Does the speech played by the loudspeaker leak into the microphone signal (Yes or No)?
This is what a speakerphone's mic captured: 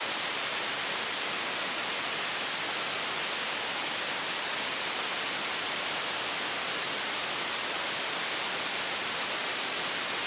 No